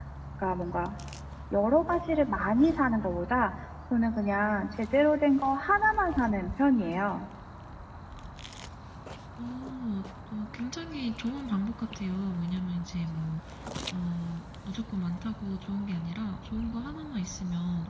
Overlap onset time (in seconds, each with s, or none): none